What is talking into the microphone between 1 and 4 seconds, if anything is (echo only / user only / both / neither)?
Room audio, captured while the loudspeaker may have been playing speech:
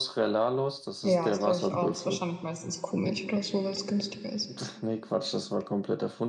both